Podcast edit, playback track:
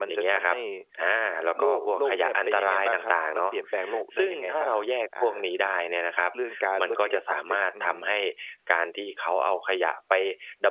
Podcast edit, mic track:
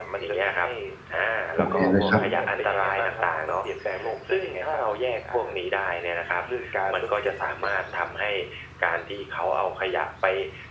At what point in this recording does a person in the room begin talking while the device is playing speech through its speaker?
1.5 s

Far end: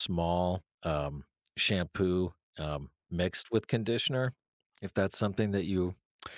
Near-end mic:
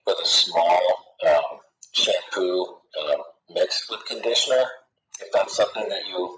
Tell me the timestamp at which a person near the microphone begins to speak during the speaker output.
none

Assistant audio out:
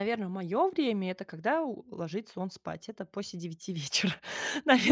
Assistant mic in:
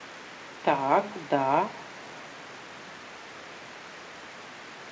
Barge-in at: 0.7 s

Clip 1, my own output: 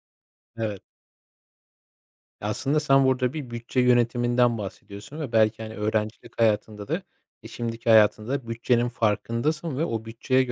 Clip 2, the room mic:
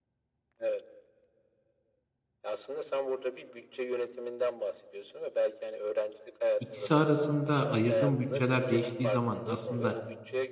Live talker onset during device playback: 6.6 s

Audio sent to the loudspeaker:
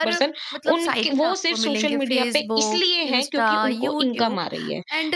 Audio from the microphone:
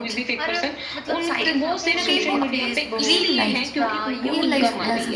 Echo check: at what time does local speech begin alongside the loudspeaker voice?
1.4 s

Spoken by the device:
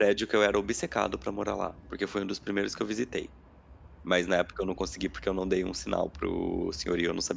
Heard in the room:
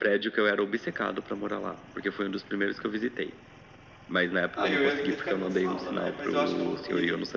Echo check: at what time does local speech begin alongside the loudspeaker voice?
4.6 s

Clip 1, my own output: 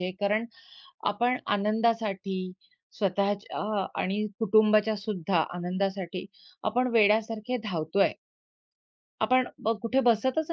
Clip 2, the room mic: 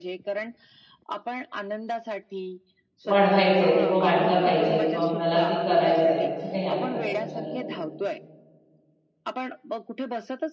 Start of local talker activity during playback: 3.1 s

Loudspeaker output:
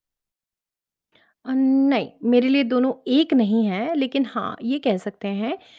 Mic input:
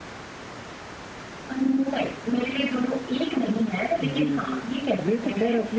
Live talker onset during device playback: 4.0 s

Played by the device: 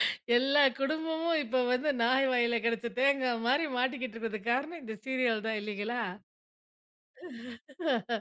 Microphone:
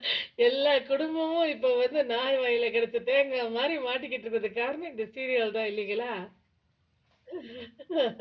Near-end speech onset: none

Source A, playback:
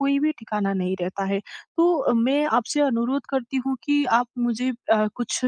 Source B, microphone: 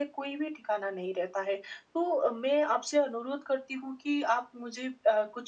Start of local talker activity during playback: none

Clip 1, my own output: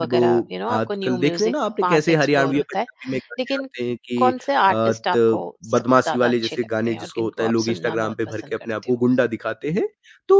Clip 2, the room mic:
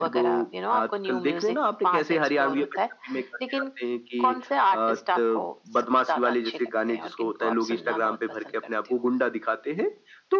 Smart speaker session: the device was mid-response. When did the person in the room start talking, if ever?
none

